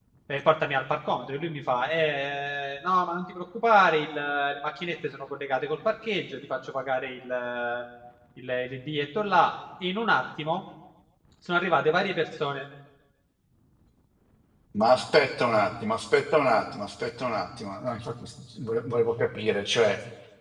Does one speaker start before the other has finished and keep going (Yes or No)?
No